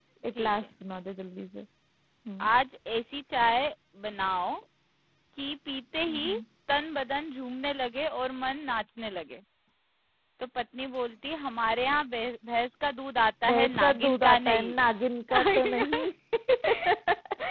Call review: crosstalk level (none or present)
present